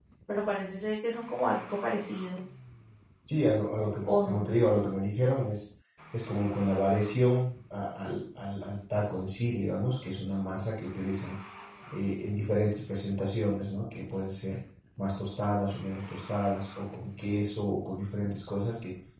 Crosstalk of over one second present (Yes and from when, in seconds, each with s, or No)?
No